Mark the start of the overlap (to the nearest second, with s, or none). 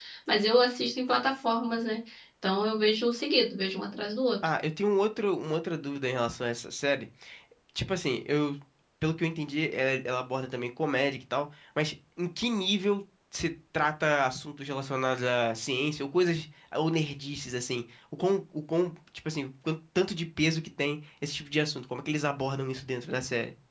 none